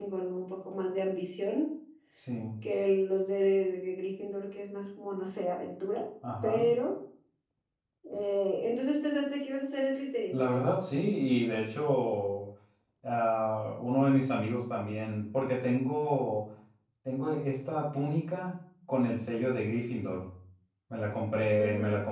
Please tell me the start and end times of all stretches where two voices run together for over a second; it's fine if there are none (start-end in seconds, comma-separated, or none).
none